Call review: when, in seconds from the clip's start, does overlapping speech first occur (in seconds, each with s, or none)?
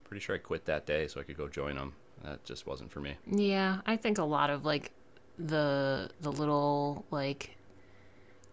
none